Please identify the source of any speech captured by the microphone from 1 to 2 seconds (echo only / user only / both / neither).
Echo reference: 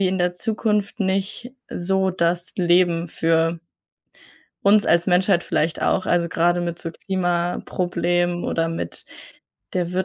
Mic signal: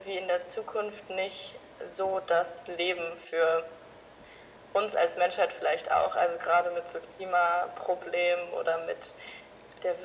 echo only